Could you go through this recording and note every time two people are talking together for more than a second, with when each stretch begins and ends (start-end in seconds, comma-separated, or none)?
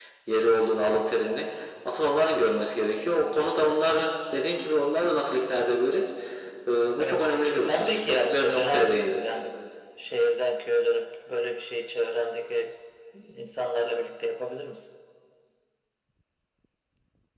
7.0-9.2